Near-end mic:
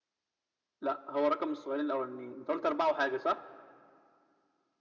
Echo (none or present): present